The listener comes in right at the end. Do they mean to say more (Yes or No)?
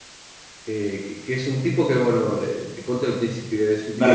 No